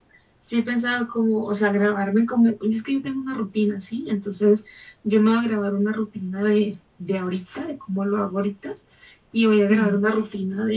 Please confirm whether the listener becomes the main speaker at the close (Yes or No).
No